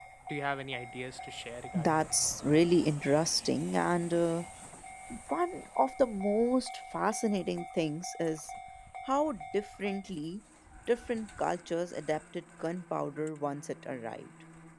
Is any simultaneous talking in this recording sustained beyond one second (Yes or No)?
No